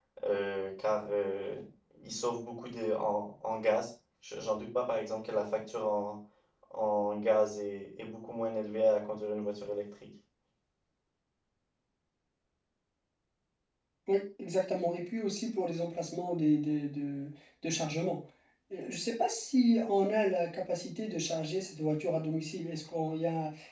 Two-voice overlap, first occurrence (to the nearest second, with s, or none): none